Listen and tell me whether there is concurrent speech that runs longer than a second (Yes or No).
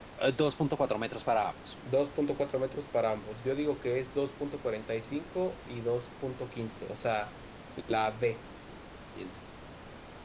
No